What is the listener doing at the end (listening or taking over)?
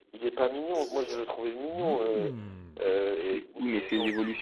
taking over